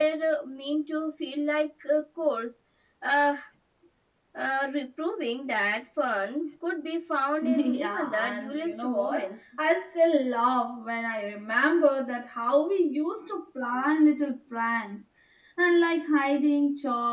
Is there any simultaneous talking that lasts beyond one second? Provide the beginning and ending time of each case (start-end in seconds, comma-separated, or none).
7.4-9.3